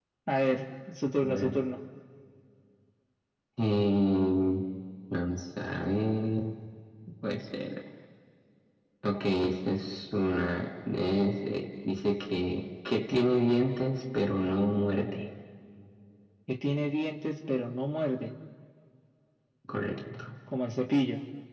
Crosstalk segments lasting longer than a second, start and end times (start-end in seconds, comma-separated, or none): none